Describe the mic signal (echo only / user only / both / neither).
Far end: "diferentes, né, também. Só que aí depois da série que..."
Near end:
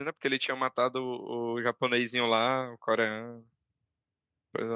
user only